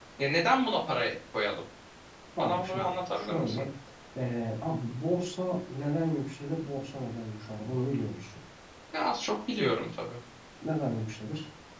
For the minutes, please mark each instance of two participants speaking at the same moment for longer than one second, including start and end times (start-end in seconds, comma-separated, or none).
2.4-3.6